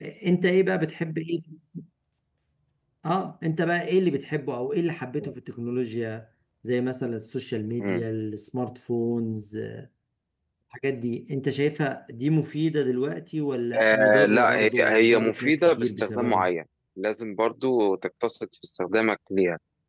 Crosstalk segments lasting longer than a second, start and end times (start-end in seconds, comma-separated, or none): 13.8-16.5